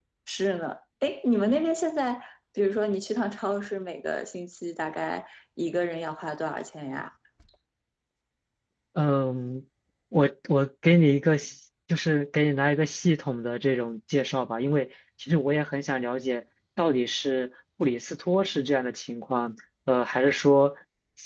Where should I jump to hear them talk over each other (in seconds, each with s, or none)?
none